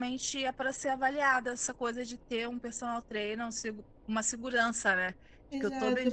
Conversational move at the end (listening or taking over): taking over